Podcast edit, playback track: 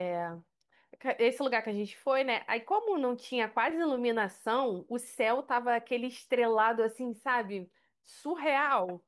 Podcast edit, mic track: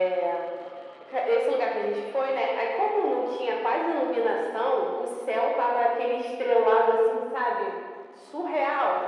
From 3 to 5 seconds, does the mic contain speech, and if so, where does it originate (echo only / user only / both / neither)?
echo only